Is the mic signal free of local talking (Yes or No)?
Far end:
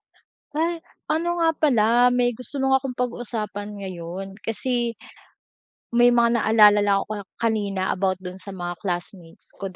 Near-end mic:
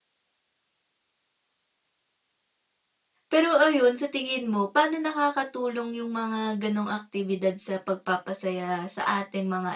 No